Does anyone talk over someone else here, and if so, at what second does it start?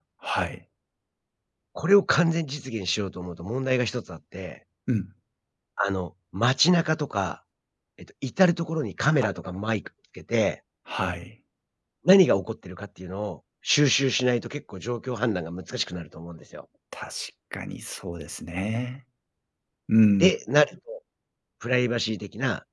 none

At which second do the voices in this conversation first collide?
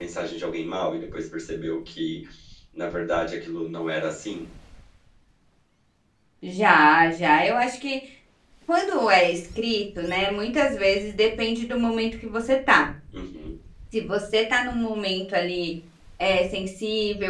none

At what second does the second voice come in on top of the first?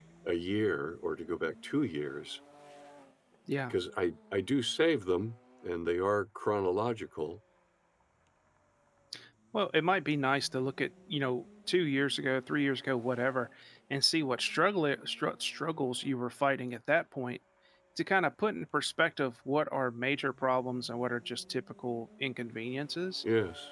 none

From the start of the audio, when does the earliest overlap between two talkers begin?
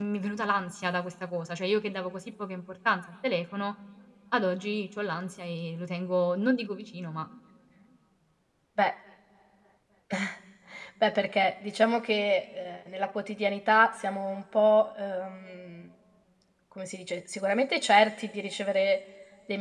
none

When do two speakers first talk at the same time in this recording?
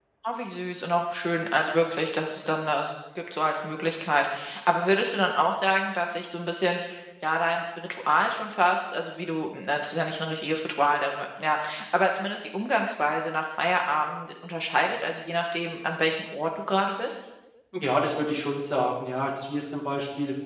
none

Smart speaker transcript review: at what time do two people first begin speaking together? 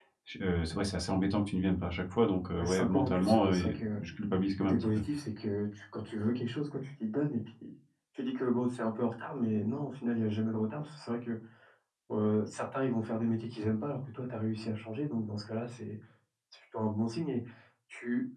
3 s

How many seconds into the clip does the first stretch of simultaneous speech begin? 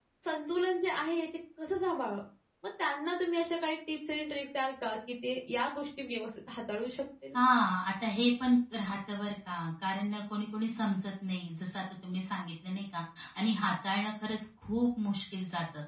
none

